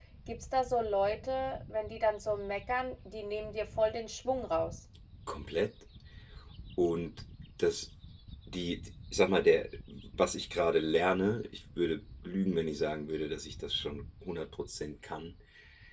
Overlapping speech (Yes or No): No